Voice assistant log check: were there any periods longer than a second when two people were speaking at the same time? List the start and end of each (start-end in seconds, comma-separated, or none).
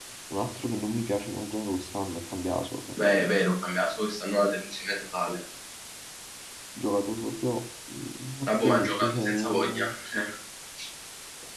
8.5-9.8